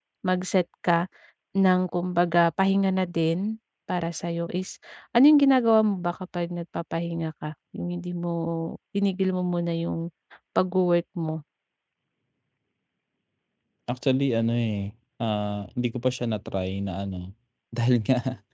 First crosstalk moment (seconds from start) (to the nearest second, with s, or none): none